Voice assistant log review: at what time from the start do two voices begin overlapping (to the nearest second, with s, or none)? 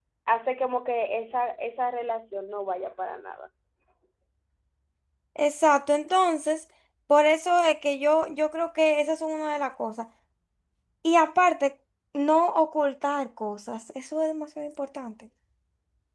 none